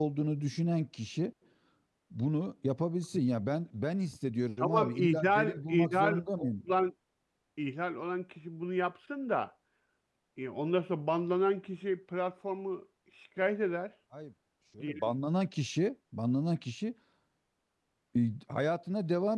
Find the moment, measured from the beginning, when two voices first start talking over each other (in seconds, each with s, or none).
4.6 s